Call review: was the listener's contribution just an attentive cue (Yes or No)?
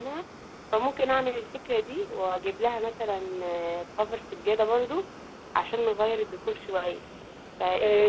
No